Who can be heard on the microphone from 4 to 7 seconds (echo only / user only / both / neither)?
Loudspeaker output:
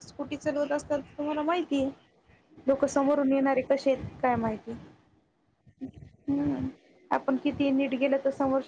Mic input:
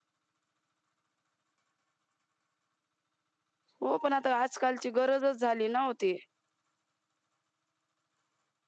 user only